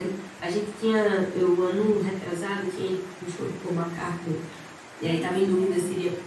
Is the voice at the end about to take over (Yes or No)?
No